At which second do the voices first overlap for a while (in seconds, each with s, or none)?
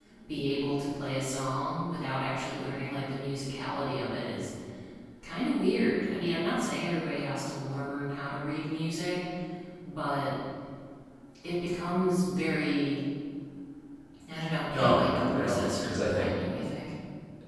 14.7 s